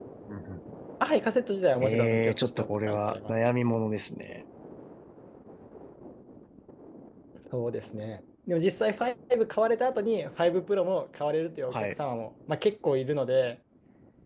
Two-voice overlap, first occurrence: 2 s

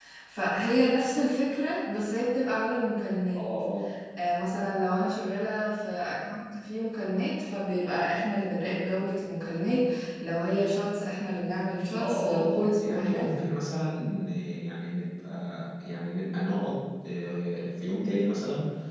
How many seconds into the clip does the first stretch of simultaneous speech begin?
12 s

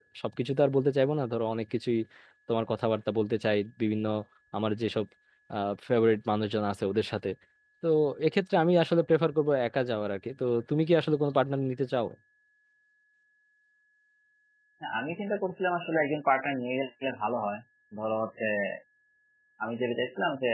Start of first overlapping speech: none

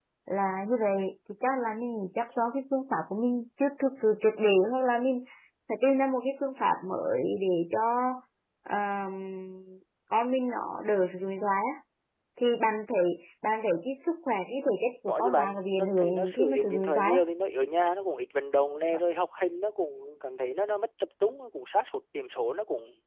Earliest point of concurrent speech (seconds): 15 s

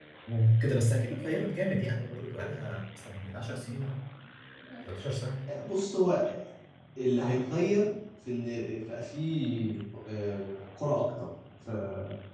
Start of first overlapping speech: none

